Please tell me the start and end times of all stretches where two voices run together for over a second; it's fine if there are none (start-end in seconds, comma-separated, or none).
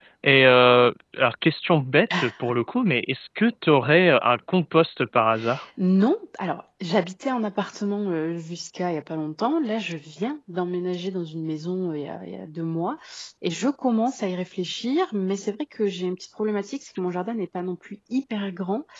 none